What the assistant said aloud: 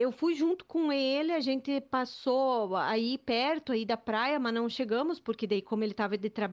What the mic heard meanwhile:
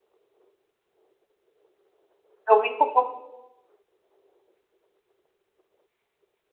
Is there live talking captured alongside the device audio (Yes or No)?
Yes